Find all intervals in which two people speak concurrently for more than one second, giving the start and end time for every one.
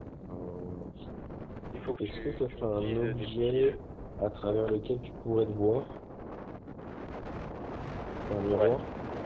2.0-3.8

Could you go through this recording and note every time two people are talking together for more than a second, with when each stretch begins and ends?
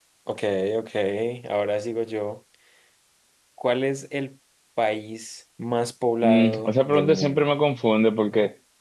6.2-7.5

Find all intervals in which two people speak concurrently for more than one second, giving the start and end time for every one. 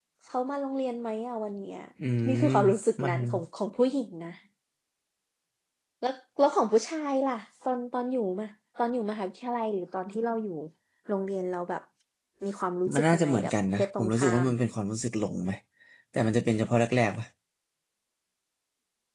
12.9-14.5

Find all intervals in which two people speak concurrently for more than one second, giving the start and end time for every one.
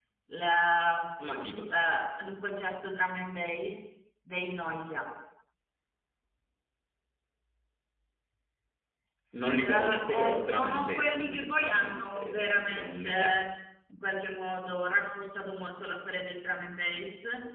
9.5-13.3

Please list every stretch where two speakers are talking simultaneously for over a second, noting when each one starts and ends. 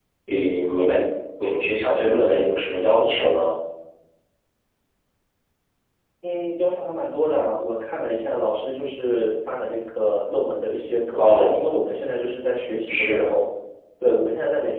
none

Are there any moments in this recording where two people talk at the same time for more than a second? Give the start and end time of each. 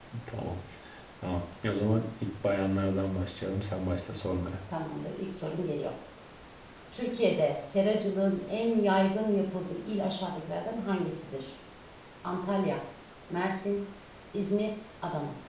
none

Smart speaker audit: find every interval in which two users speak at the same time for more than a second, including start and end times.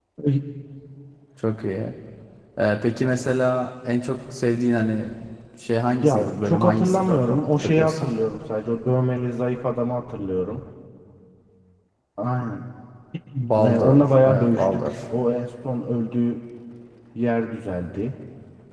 6.0-8.1, 13.6-14.9

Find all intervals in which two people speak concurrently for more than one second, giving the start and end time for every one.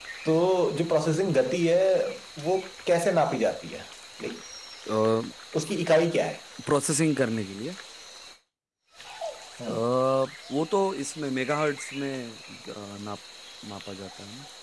none

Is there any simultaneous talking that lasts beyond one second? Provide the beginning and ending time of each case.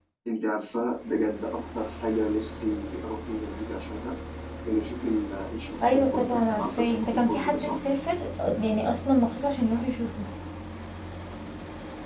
5.9-7.7

